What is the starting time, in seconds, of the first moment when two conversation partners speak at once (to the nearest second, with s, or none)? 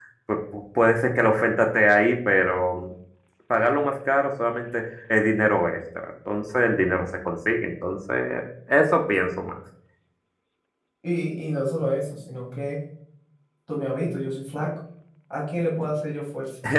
none